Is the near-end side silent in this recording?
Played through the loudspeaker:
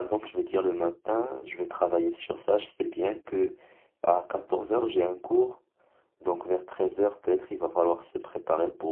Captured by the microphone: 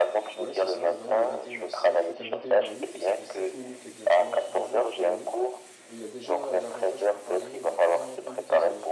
No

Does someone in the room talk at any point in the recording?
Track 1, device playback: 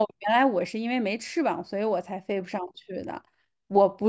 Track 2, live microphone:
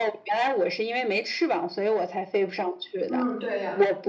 Yes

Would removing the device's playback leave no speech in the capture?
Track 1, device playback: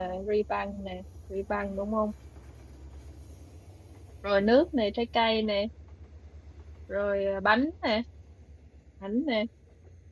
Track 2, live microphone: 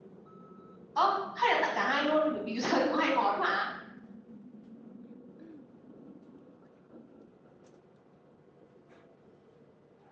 No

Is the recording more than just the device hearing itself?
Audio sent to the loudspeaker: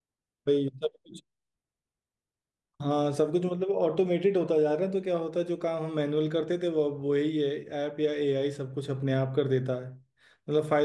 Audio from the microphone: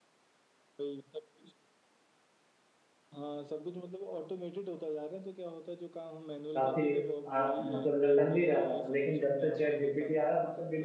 Yes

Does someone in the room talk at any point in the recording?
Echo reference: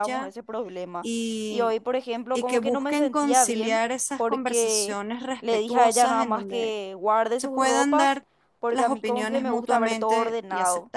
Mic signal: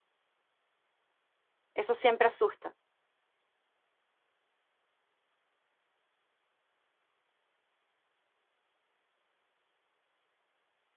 Yes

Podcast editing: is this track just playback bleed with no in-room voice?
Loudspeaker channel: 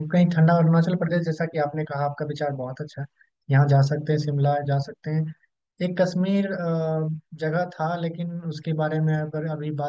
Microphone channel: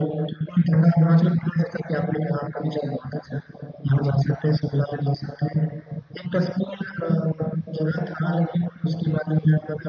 Yes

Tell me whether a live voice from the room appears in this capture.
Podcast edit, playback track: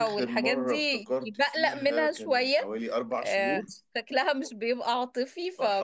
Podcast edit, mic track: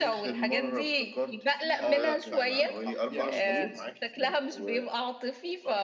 Yes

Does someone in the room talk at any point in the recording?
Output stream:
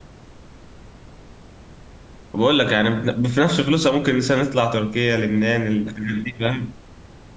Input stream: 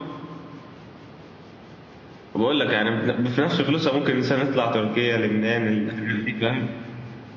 No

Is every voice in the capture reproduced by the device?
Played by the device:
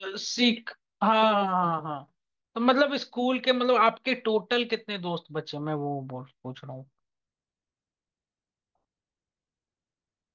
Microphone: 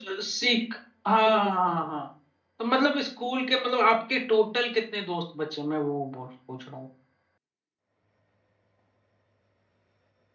Yes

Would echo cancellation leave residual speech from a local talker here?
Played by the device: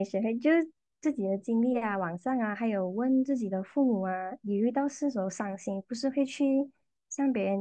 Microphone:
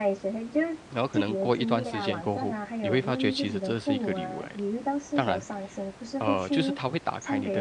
Yes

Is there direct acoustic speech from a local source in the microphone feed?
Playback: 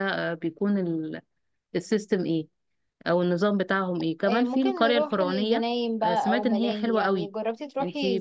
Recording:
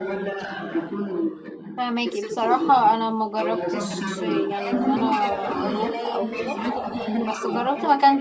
Yes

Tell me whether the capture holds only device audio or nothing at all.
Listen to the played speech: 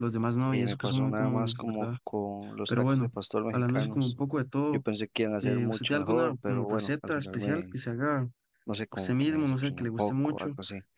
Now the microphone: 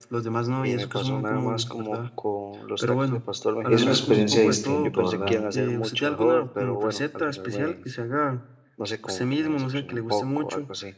No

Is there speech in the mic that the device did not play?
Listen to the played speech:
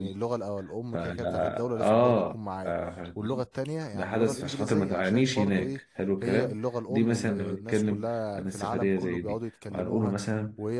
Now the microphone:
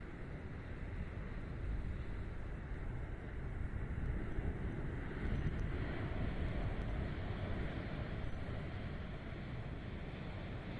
No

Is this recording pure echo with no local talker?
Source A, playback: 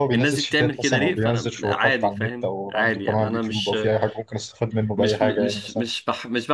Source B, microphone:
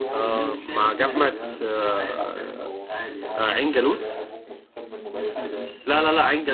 No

